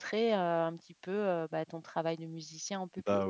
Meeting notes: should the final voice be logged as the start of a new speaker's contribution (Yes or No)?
Yes